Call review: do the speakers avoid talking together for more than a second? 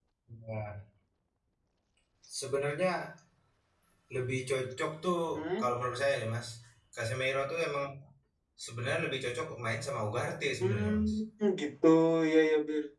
Yes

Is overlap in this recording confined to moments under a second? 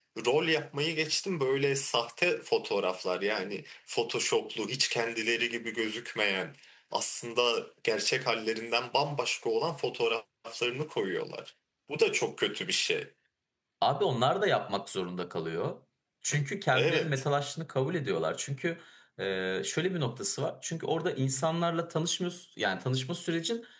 Yes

